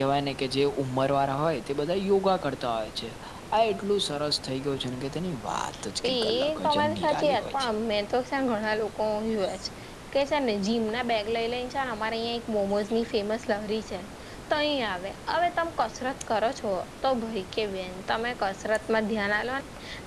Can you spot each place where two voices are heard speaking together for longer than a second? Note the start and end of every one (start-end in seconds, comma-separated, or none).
6.0-7.7